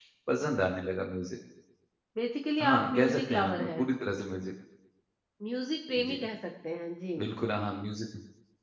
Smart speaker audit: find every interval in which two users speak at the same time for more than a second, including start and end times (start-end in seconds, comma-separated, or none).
2.6-3.8